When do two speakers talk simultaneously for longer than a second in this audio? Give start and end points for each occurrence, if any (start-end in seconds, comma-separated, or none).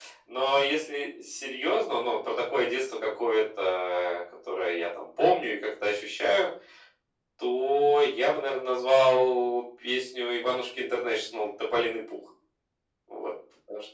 none